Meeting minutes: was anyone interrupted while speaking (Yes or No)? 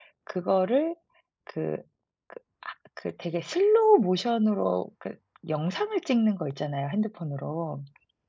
No